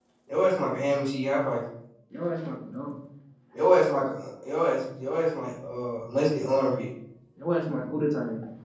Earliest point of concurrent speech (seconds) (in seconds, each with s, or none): none